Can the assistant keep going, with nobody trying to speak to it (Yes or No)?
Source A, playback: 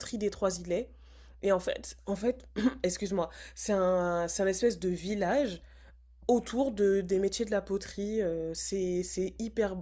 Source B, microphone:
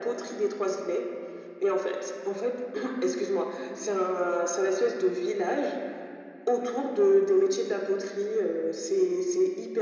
Yes